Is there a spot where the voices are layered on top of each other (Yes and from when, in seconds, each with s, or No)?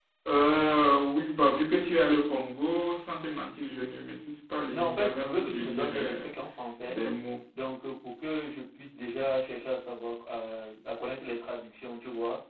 Yes, from 4.7 s